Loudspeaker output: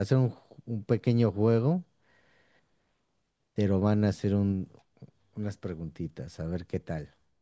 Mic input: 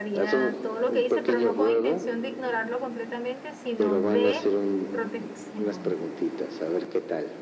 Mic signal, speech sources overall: both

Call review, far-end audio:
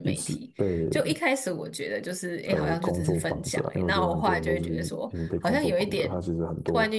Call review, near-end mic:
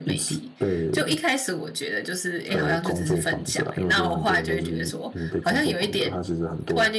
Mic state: echo only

